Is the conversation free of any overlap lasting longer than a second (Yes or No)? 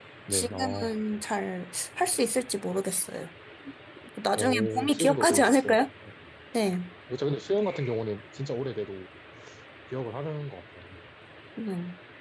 No